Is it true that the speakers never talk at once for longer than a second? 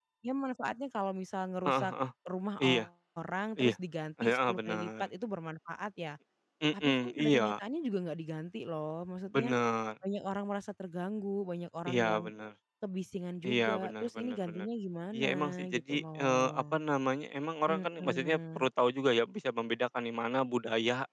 No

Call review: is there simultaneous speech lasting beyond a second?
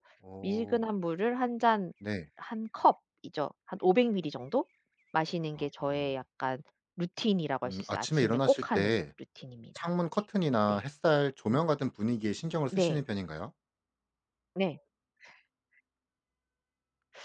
Yes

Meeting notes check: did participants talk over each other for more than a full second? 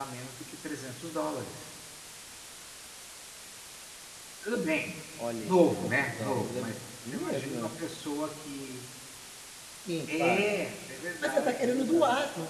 Yes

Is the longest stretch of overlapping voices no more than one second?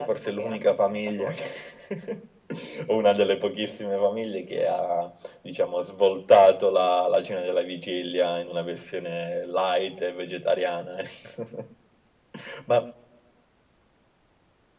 No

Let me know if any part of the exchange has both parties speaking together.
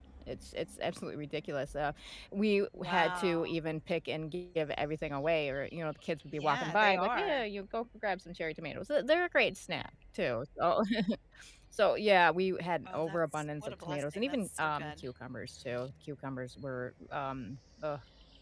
Yes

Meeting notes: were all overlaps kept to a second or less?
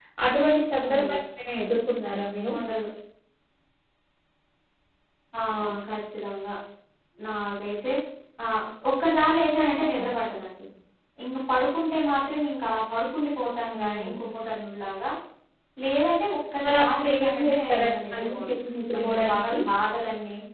No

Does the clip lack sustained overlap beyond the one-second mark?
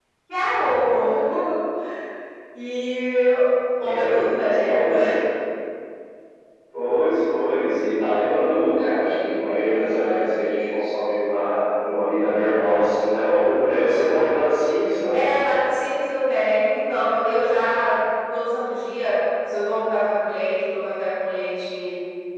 Yes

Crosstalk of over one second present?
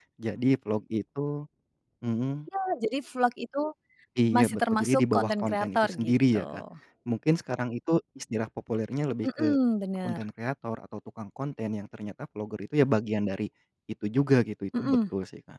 Yes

